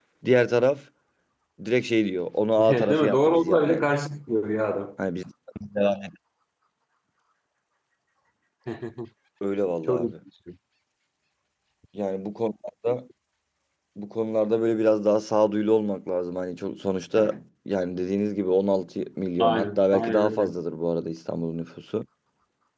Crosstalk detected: Yes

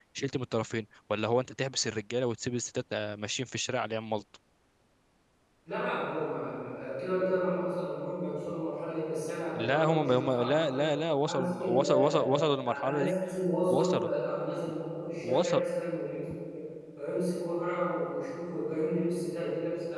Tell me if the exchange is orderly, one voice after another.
No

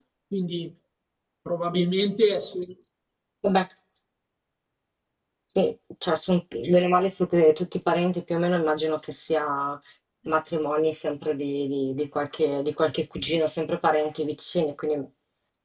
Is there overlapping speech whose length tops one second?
No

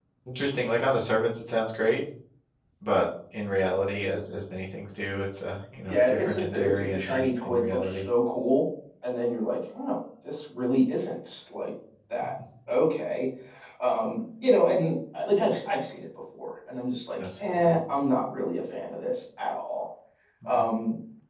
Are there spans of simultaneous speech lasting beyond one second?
Yes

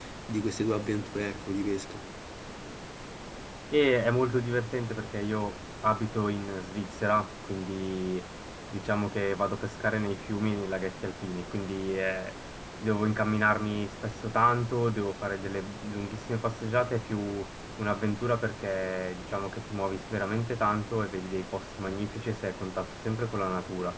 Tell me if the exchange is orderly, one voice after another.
Yes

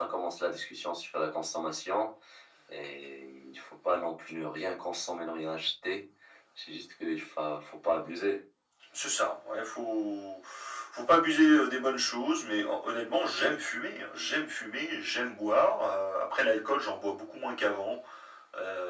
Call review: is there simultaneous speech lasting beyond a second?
No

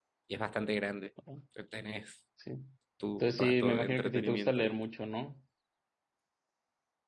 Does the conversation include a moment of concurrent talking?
Yes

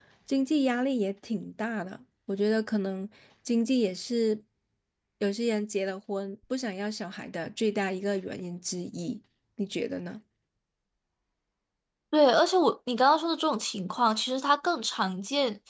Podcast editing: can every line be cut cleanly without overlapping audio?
Yes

